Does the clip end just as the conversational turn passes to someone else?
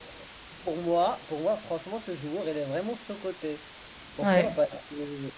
No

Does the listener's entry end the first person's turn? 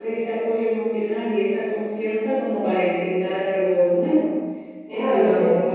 Yes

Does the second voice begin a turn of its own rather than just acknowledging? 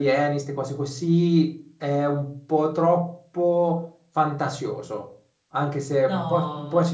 No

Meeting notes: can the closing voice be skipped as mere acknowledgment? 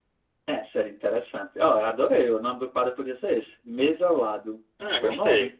No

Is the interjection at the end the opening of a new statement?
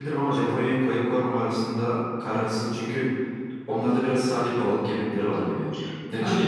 Yes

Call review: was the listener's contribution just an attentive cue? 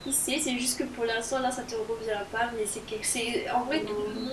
Yes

